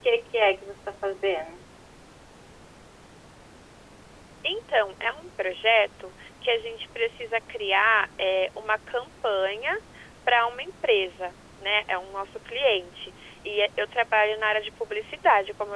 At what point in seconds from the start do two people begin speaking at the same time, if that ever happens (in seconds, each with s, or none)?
none